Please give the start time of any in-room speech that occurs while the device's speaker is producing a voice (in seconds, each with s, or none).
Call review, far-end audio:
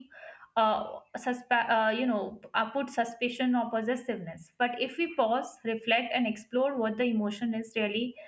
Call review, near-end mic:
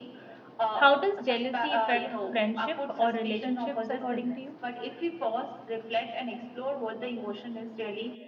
0.7 s